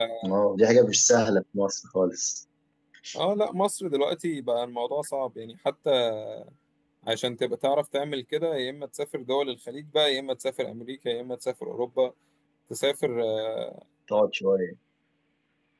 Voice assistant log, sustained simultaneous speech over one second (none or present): none